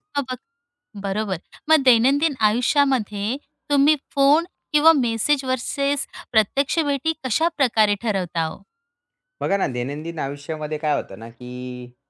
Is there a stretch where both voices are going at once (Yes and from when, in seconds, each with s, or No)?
No